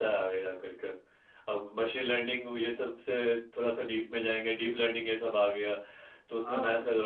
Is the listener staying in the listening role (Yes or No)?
Yes